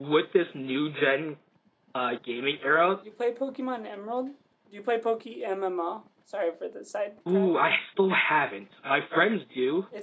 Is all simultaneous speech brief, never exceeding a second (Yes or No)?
Yes